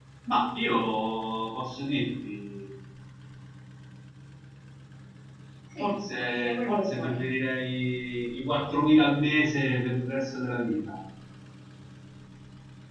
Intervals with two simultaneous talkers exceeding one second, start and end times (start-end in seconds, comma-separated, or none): 5.8-7.2